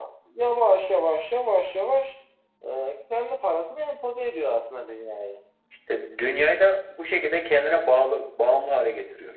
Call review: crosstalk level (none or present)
none